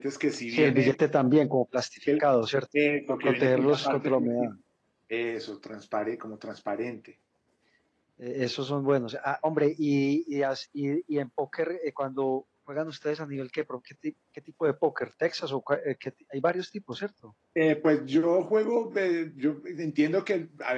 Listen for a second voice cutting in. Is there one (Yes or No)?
Yes